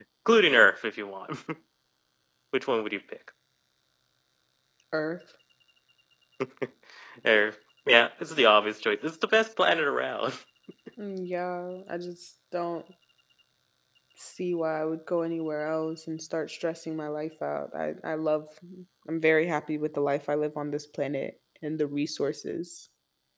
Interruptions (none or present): none